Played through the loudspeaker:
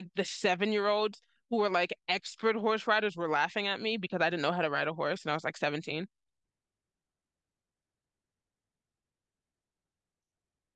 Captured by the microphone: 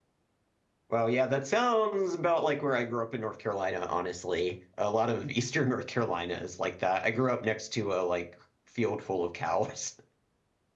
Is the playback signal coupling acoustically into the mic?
No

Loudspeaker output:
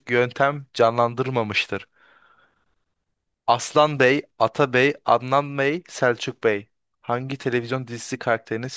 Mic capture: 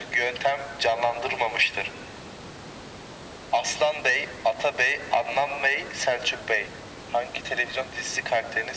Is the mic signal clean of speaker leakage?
No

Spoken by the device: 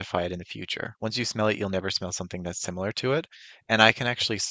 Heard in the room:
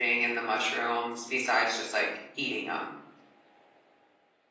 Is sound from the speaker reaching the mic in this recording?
No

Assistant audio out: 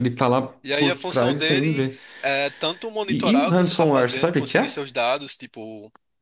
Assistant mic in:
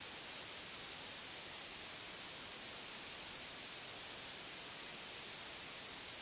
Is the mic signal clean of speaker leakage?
Yes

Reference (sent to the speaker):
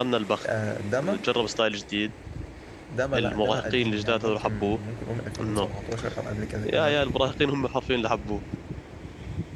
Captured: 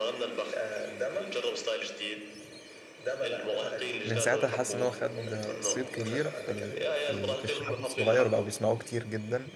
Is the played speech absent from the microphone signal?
No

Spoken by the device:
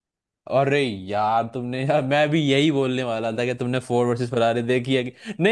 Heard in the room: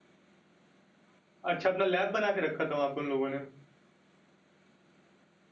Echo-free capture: Yes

